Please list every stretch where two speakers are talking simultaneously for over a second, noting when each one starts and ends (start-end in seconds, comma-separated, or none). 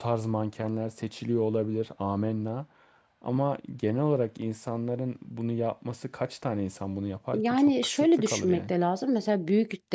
7.3-8.7